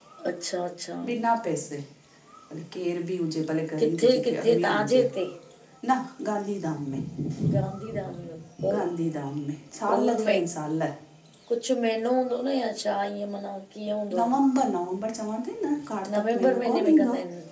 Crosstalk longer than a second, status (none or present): present